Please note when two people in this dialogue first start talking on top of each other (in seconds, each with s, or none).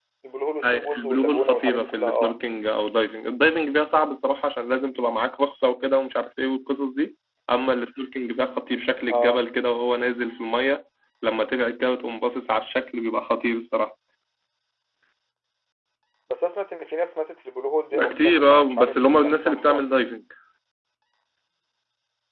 0.6 s